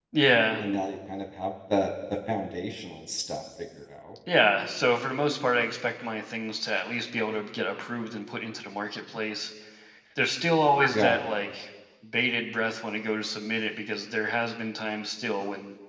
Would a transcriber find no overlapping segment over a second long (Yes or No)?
Yes